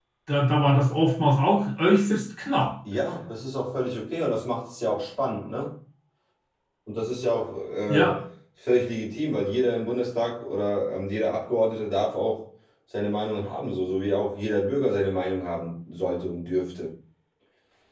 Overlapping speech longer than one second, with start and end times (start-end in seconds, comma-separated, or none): none